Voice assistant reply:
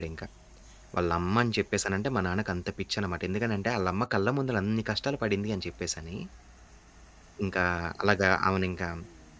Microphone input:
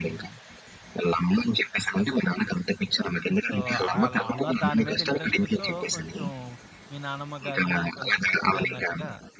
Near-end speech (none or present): present